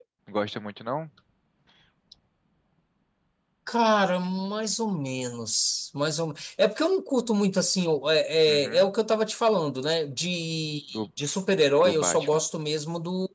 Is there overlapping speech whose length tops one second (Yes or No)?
No